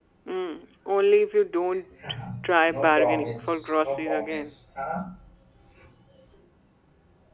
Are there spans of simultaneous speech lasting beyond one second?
Yes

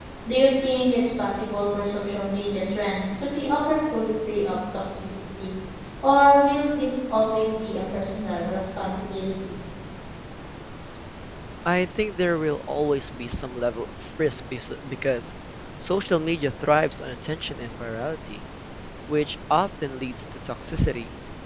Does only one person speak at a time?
Yes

